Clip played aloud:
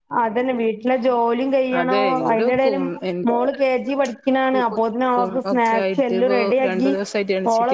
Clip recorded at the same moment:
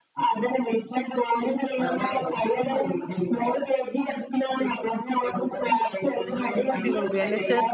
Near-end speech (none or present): present